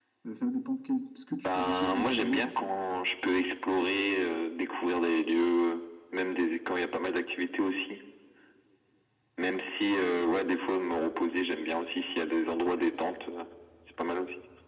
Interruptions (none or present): present